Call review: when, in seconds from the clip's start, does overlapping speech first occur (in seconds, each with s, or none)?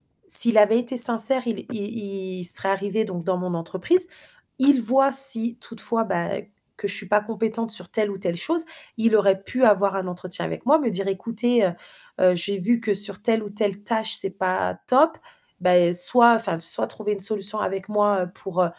none